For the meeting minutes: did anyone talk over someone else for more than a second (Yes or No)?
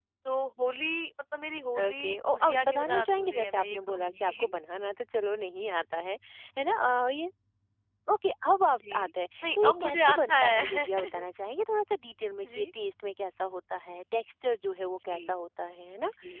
Yes